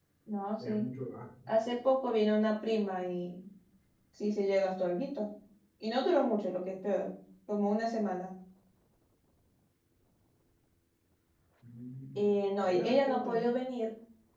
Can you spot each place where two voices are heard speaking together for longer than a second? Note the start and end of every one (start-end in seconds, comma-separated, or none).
12.2-13.5